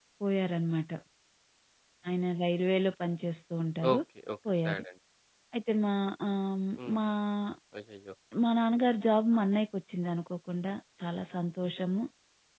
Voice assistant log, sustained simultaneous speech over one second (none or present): none